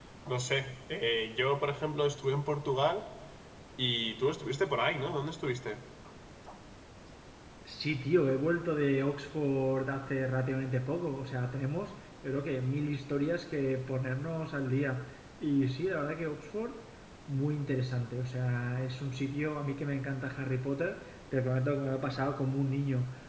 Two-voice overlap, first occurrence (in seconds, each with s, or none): none